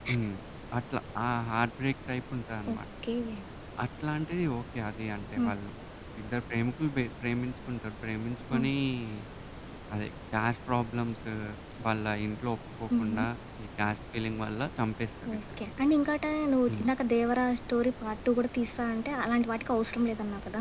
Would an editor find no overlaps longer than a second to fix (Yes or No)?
Yes